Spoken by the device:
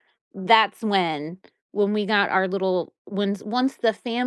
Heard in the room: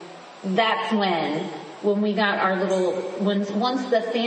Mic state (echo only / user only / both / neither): echo only